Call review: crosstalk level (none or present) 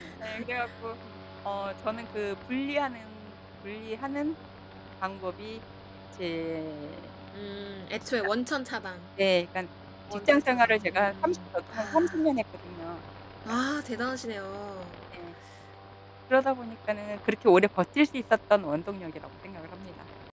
present